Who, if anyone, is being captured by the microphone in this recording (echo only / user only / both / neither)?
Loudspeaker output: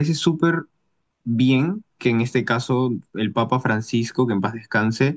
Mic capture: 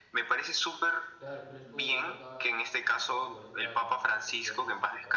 both